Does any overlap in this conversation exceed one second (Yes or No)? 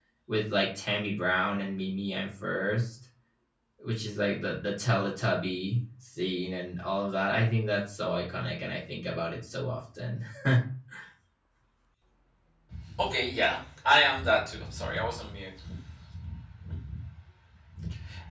No